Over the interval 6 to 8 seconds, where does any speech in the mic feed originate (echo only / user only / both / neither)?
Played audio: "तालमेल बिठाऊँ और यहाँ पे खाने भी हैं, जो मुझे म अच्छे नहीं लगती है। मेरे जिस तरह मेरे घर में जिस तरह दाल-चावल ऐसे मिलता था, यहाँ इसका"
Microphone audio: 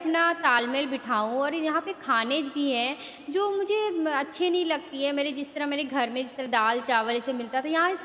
echo only